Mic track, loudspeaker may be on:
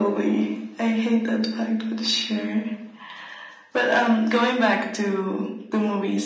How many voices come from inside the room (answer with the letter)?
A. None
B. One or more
A